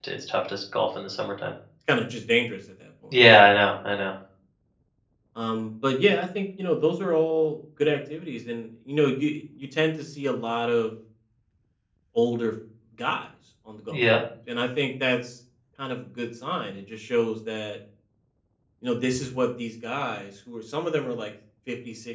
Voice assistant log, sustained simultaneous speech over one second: none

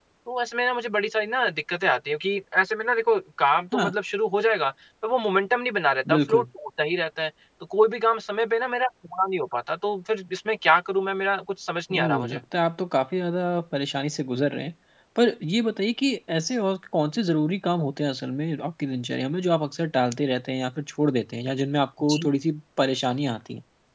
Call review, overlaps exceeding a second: none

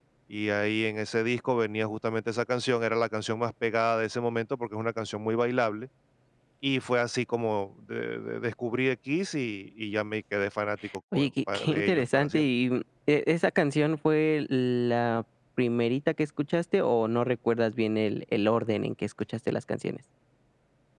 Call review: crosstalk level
present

